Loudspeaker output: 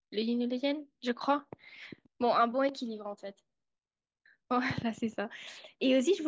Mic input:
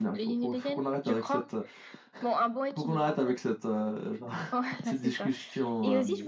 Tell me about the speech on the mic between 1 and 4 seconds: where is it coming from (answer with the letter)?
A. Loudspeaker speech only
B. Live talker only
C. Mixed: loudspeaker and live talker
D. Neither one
C